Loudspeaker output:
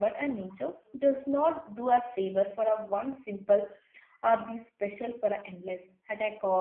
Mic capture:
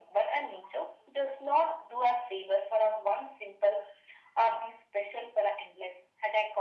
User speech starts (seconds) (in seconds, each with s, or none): none